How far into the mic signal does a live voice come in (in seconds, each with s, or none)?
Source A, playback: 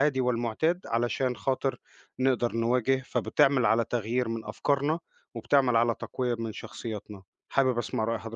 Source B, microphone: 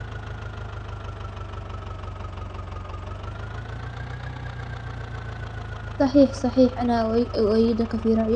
6.0 s